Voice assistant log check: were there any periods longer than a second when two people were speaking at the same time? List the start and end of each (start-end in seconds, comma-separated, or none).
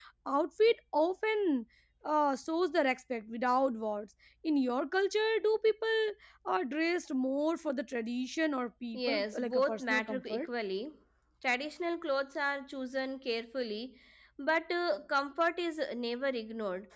8.9-10.5